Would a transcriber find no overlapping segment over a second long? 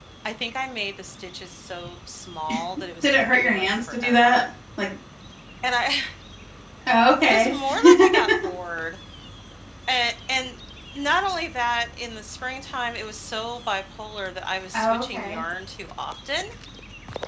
No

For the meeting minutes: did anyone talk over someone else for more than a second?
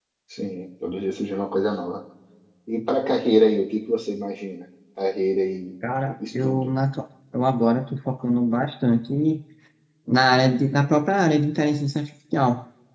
No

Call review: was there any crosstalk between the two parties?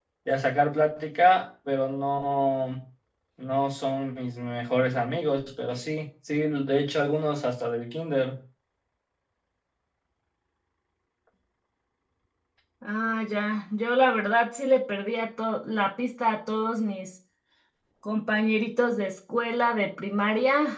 No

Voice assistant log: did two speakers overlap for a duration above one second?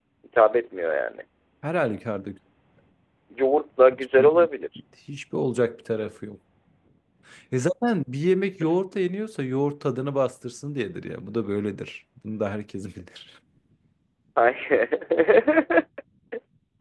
No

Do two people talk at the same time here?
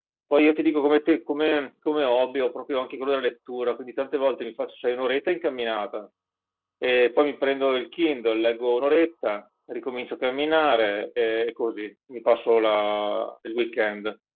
No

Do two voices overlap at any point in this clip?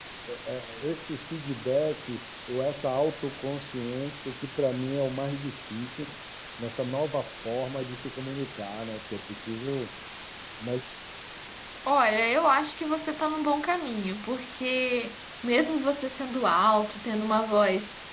No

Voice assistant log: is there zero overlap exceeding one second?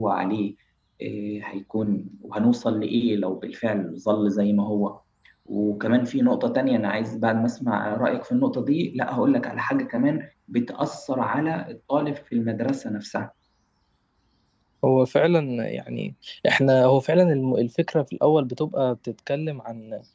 Yes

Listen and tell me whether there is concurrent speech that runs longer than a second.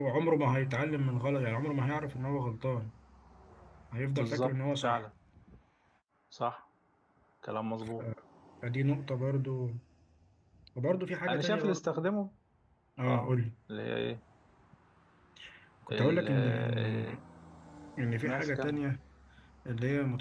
Yes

